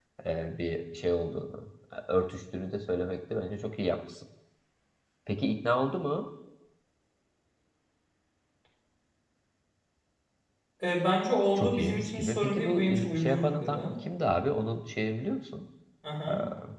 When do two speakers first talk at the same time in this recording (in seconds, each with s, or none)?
11.6 s